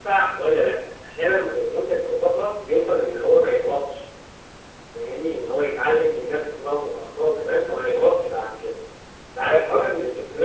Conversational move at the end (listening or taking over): listening